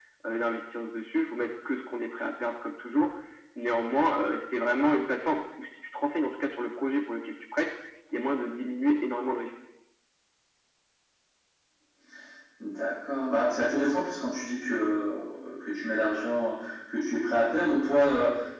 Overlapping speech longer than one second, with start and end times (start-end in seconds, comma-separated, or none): none